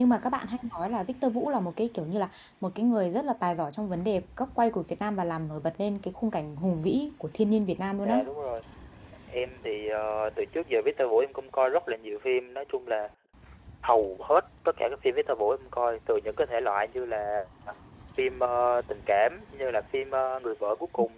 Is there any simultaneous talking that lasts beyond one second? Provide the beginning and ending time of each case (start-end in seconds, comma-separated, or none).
none